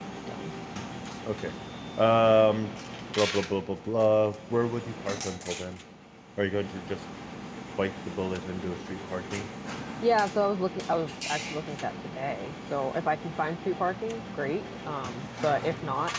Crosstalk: none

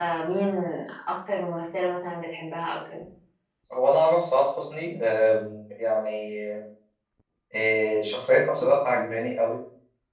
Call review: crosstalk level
none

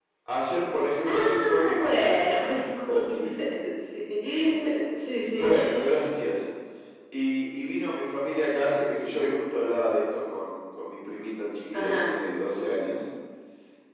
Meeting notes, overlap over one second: present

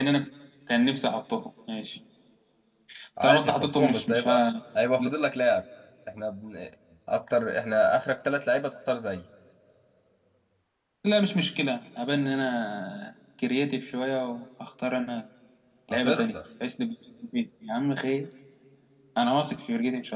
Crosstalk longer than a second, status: present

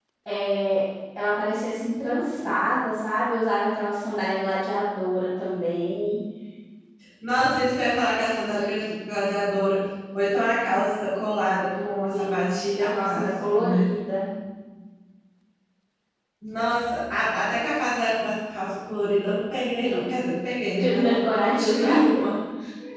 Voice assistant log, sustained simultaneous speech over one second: present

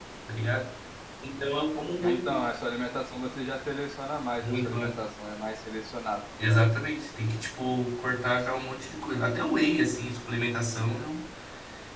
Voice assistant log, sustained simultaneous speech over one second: none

